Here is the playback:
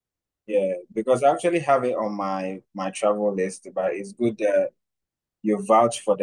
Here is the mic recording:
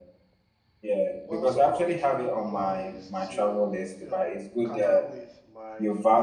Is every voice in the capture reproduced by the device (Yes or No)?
No